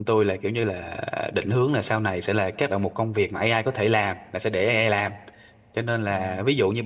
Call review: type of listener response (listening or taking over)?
listening